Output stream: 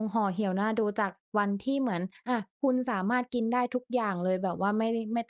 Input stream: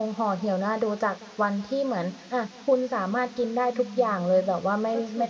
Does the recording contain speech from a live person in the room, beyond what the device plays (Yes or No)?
Yes